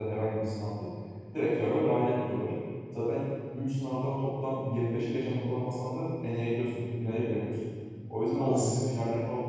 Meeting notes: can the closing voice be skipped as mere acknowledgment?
Yes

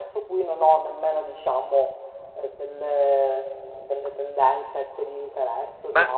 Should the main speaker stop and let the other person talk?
Yes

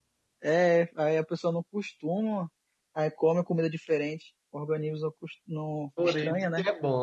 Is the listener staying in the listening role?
No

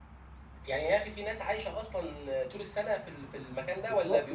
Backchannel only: No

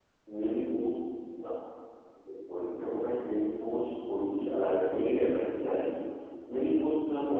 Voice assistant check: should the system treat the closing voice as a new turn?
No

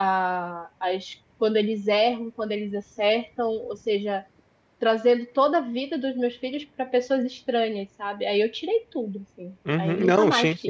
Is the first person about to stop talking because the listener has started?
Yes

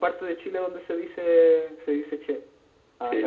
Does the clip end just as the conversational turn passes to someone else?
Yes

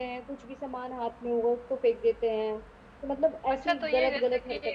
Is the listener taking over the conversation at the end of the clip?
Yes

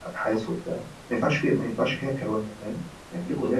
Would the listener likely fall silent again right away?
Yes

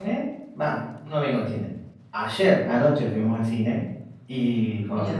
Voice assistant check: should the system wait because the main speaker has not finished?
Yes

